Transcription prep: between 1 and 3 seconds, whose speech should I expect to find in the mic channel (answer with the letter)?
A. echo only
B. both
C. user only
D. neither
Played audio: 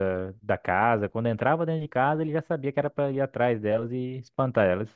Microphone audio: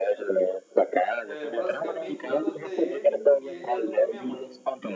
B